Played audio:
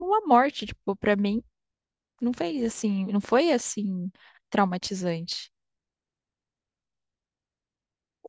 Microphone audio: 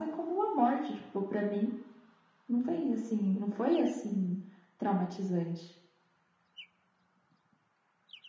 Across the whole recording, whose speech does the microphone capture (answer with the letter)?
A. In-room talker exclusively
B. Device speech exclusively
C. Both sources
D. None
B